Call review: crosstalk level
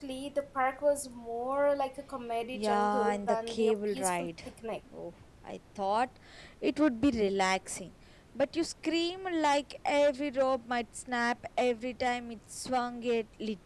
present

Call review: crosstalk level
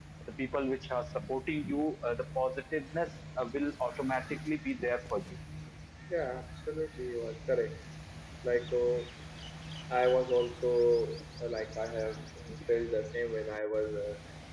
none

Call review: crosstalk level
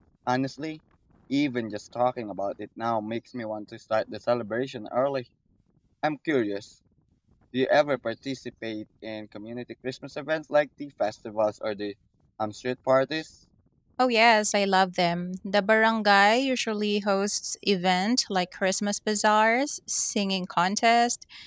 none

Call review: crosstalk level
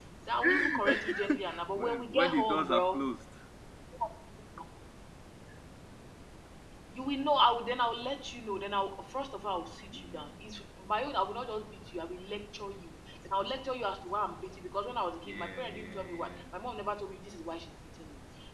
present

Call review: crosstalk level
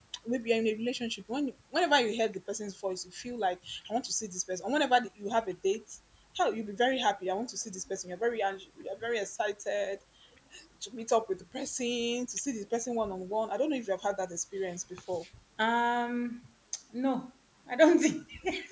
none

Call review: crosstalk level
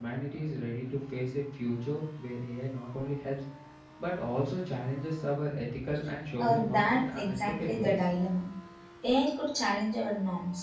present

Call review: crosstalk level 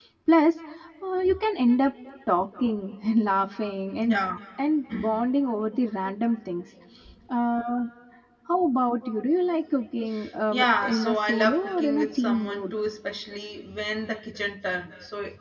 present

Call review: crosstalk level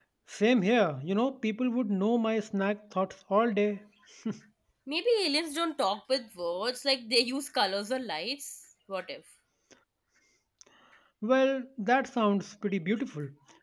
none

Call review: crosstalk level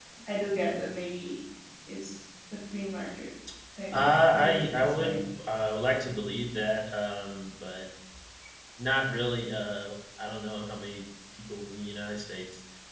present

